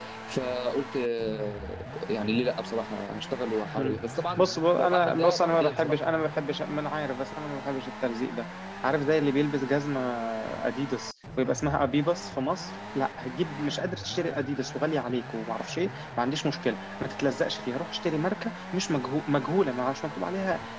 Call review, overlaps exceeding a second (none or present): present